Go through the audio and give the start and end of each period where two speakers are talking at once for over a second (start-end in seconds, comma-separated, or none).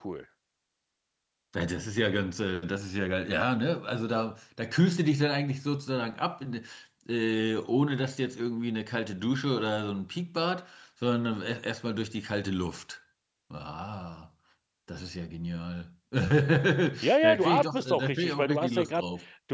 17.2-19.0